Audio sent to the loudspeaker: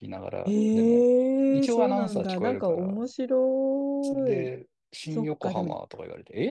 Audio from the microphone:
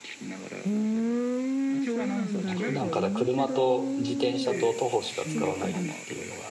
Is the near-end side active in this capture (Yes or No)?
Yes